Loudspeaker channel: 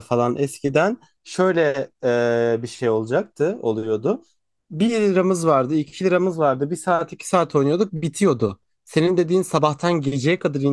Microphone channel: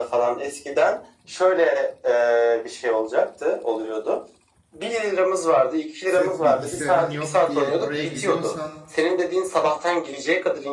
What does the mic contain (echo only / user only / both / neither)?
both